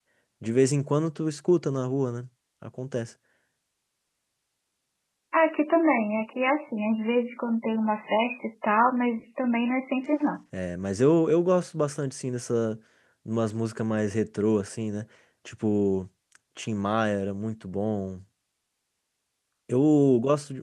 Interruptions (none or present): none